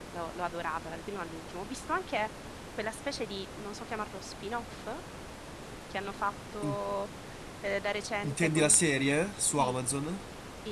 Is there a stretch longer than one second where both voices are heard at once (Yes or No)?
No